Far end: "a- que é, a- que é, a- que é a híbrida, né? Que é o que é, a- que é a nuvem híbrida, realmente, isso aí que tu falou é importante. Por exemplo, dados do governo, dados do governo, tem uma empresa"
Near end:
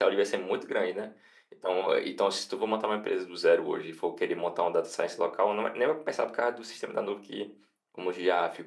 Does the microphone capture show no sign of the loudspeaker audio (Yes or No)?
Yes